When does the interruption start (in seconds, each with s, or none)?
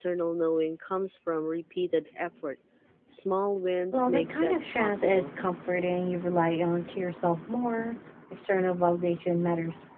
3.9 s